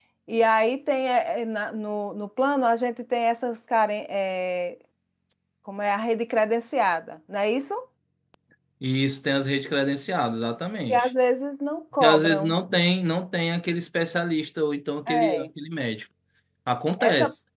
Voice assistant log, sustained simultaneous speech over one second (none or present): none